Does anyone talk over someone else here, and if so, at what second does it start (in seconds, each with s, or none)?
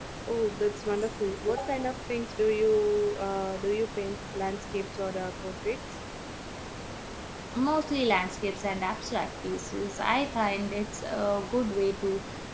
none